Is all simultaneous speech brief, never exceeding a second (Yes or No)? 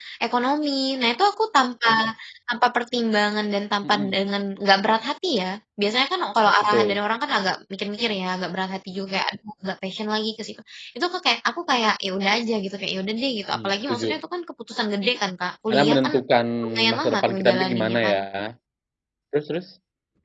No